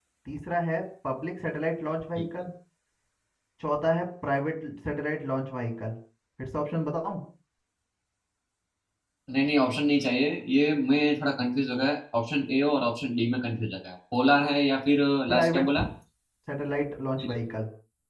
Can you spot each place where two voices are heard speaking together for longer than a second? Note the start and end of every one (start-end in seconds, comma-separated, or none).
none